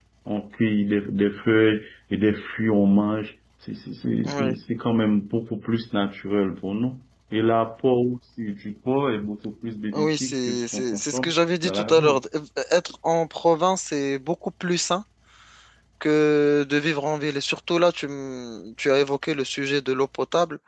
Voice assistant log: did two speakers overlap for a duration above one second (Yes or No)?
Yes